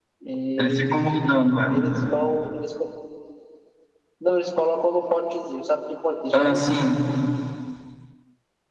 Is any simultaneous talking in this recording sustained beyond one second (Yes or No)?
No